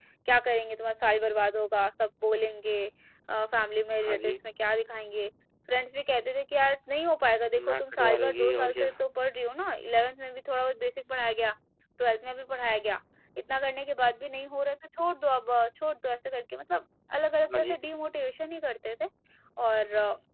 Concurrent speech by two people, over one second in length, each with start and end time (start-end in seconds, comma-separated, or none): 7.7-8.9